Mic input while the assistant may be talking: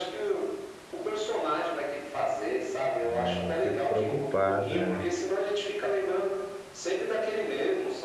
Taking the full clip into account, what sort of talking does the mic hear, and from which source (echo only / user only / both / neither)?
both